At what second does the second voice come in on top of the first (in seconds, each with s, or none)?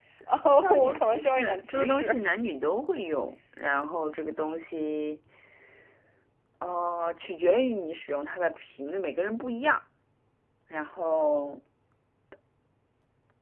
0.6 s